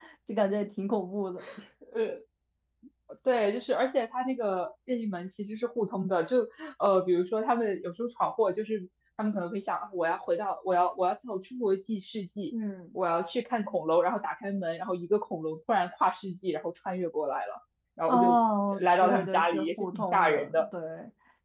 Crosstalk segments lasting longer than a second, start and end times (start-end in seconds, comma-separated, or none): 18.8-20.7